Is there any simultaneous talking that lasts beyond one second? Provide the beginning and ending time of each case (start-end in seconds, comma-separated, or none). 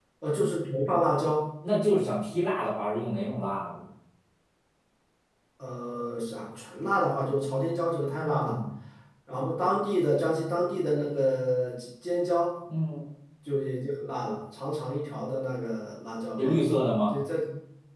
none